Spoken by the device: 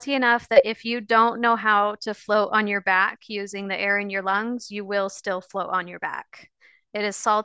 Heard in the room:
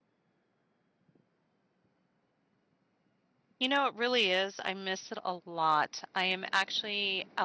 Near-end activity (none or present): present